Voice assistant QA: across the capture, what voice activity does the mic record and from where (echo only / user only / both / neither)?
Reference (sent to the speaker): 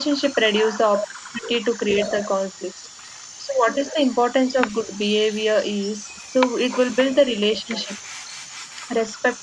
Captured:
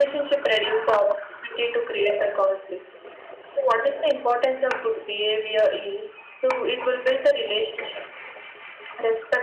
echo only